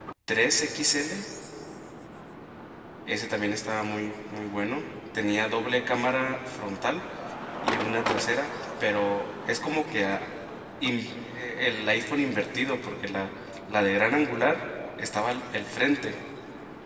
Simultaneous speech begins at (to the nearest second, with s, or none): none